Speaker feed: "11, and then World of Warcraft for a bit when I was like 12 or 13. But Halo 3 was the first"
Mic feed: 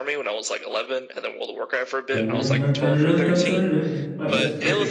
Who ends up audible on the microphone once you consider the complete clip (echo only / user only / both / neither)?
both